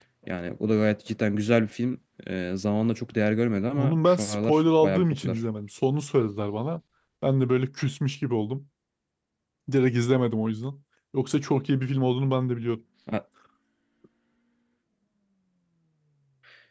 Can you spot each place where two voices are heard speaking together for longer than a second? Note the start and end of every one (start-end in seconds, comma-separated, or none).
3.8-5.4